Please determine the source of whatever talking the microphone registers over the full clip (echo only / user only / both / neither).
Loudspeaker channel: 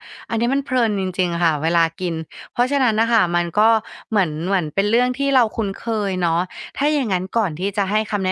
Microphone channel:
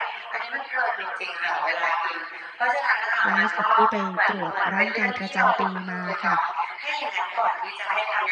both